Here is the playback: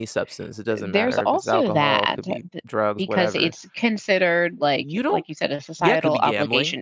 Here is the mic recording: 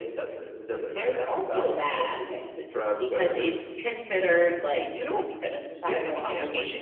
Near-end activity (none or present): none